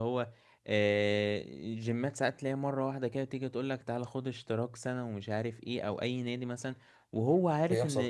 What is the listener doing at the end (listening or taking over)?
listening